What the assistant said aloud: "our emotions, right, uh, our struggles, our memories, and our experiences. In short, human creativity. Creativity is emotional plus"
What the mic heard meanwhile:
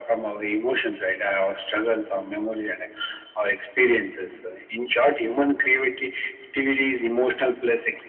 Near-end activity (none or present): none